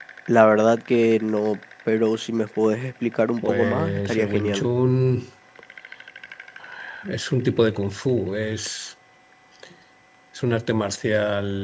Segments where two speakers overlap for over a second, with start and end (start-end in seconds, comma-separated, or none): 3.4-4.7